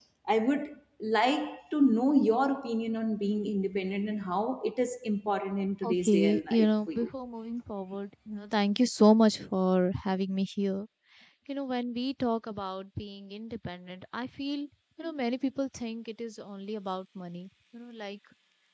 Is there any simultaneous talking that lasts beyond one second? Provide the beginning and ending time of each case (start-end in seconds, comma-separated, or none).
5.8-7.1